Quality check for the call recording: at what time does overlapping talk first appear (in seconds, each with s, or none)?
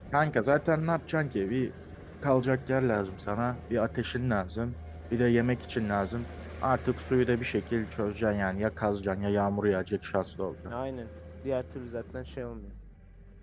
none